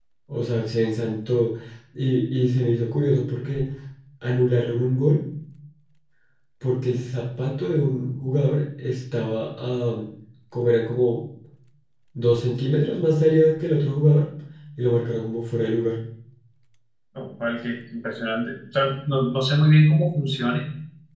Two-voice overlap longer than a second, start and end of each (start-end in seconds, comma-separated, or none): none